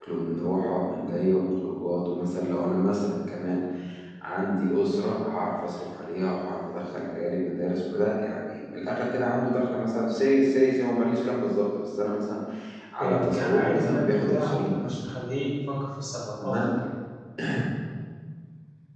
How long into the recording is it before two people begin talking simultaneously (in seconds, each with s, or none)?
13.0 s